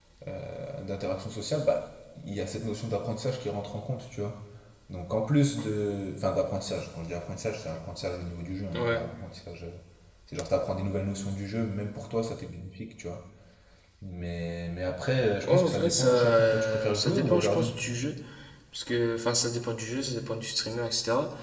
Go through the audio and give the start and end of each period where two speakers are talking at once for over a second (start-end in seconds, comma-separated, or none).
15.5-17.6